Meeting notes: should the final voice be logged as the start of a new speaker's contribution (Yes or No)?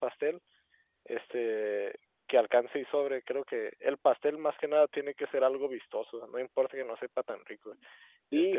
Yes